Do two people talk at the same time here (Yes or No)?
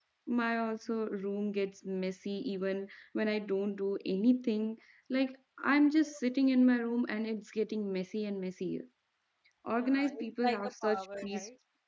Yes